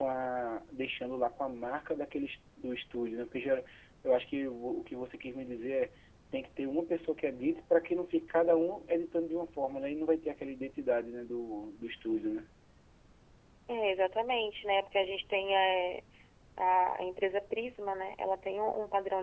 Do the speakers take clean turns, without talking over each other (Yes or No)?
Yes